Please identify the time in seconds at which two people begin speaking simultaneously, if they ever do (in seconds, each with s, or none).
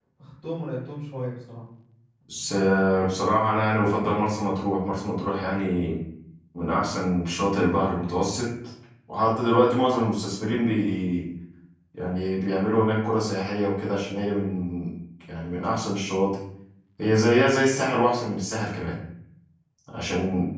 none